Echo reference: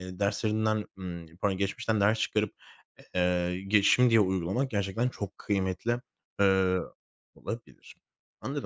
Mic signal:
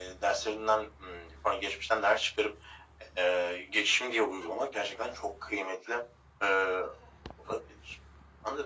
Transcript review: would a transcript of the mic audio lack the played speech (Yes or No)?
No